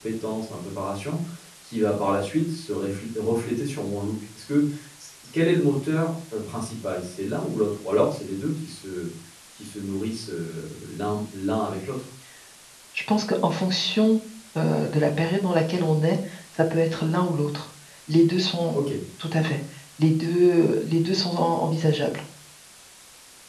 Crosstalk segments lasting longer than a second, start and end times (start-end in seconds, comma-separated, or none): none